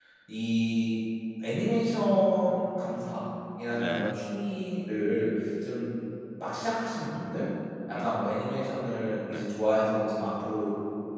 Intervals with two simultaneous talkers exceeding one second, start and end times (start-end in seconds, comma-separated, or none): none